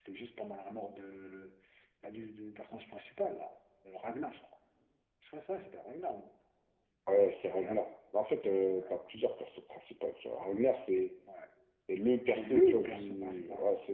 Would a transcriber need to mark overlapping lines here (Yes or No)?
Yes